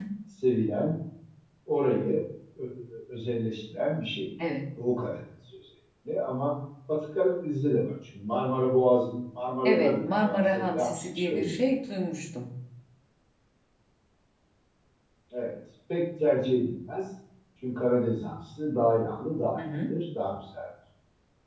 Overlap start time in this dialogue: 9.7 s

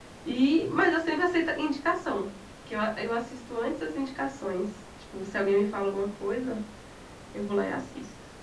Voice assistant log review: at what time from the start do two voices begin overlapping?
none

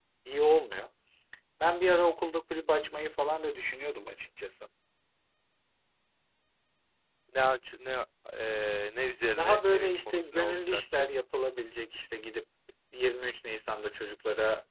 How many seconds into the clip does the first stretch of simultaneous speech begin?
9.4 s

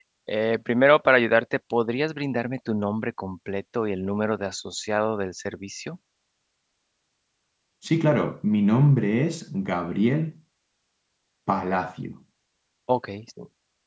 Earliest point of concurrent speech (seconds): none

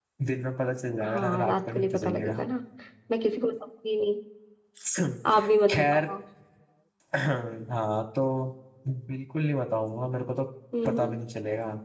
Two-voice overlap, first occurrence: 1.0 s

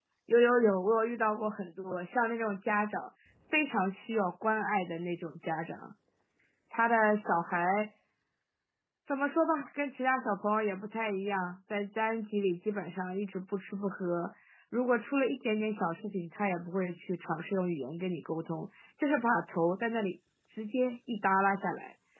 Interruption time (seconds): none

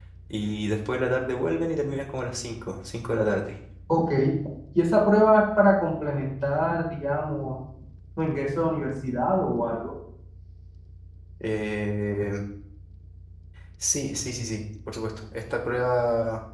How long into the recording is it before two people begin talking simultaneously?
none

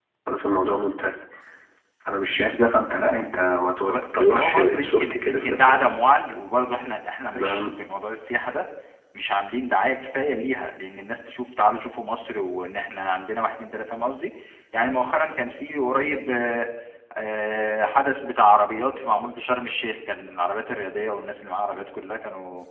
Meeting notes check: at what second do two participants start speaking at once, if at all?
3.9 s

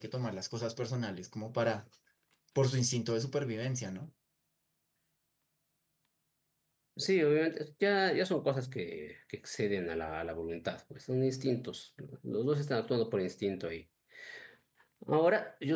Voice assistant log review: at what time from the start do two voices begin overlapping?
none

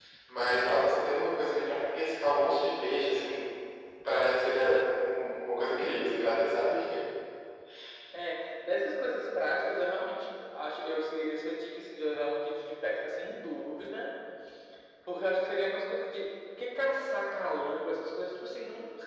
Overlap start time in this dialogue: none

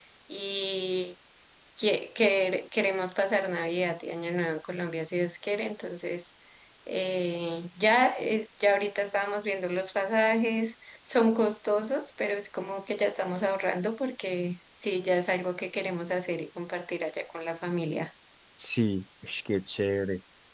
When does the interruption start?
none

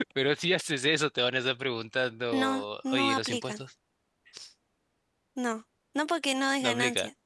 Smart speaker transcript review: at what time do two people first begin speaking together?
2.3 s

